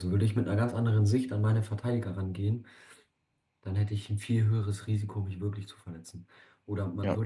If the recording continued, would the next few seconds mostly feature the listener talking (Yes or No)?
No